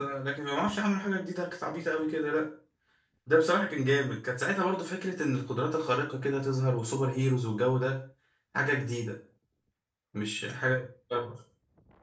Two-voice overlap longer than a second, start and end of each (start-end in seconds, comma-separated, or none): none